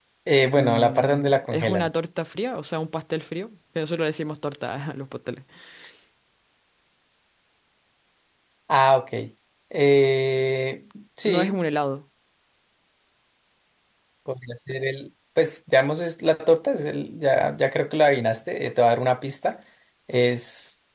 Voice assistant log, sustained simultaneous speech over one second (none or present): present